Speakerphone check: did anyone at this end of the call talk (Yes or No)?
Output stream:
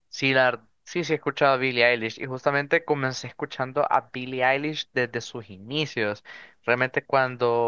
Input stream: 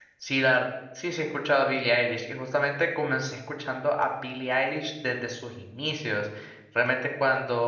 No